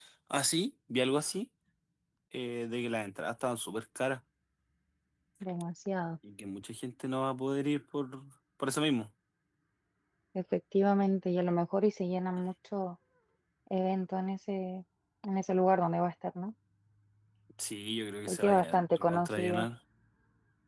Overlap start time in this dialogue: 18.3 s

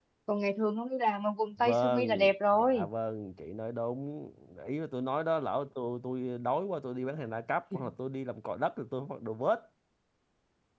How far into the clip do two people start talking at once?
1.6 s

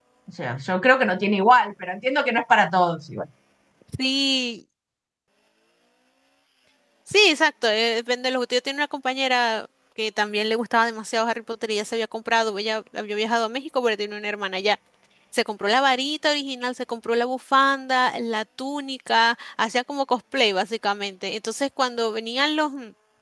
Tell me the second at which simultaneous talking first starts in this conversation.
none

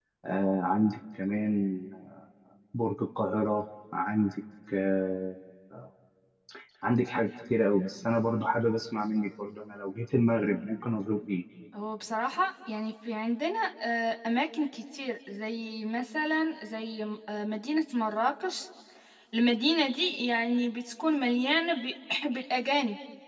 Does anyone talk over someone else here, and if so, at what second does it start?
none

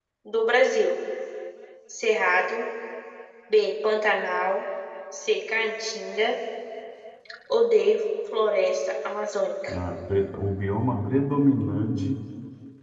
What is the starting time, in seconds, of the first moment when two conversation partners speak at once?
none

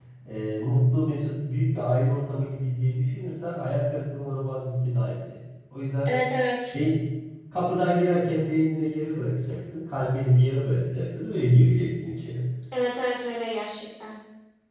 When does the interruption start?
none

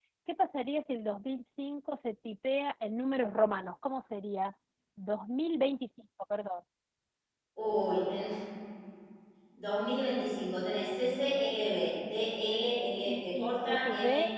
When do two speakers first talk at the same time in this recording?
13.1 s

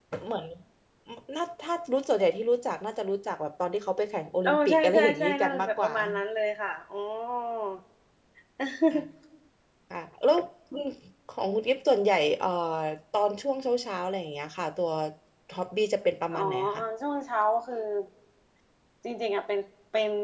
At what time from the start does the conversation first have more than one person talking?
4.4 s

